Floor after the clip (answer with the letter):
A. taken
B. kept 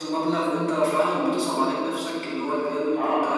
B